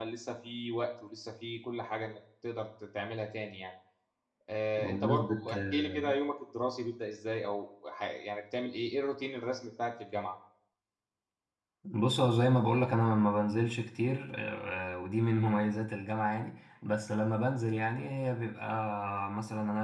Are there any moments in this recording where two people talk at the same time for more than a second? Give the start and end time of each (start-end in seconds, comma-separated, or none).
4.8-6.0